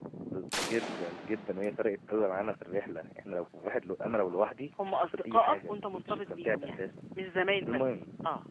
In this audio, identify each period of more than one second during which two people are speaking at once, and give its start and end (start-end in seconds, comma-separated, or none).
4.8-6.8